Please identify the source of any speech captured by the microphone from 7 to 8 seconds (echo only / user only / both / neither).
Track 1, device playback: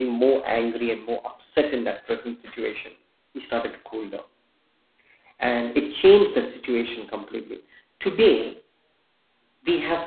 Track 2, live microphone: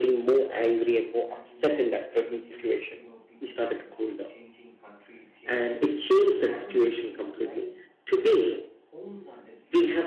both